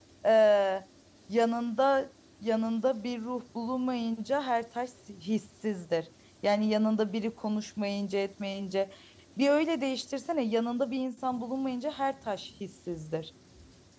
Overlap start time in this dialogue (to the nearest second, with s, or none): none